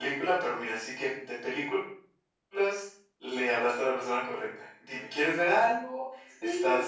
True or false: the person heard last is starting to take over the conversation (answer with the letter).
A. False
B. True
B